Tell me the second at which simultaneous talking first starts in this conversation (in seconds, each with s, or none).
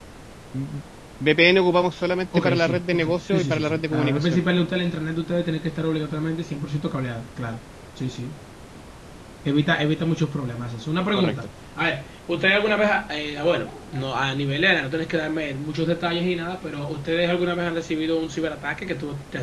2.4 s